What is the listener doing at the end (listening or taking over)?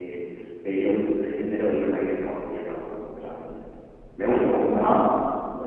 listening